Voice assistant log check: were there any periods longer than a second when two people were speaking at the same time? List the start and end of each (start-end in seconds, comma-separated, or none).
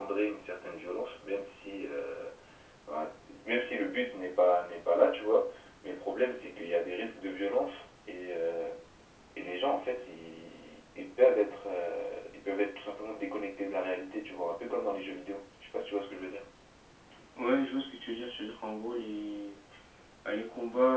none